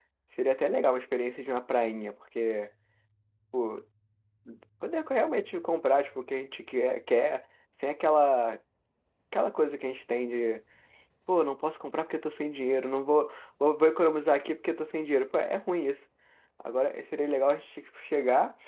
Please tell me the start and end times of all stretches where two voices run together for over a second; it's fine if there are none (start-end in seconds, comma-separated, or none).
none